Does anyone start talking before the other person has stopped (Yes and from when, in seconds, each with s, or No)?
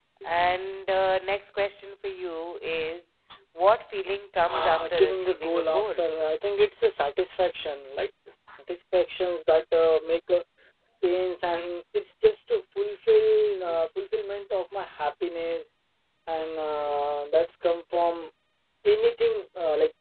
Yes, from 4.5 s